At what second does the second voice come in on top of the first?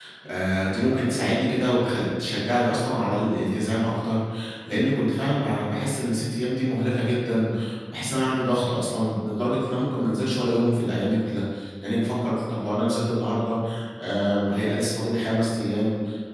none

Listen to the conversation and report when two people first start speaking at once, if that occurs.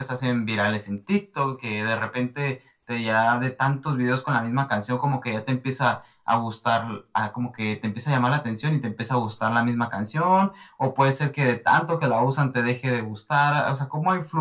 none

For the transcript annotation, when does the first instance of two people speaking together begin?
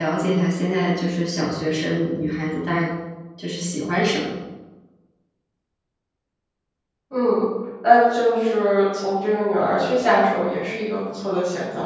none

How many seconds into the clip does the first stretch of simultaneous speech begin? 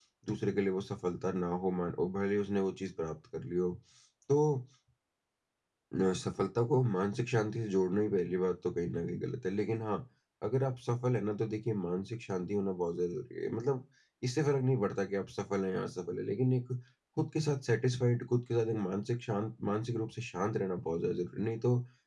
none

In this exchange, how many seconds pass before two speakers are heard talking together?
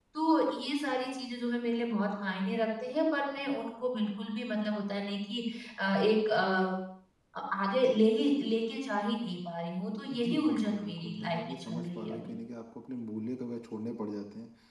10.1 s

